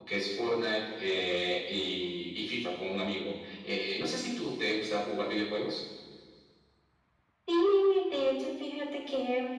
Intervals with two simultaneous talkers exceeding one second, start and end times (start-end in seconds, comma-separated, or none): none